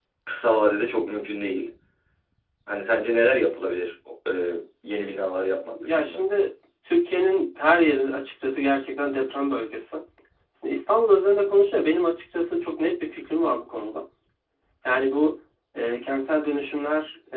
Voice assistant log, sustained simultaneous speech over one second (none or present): none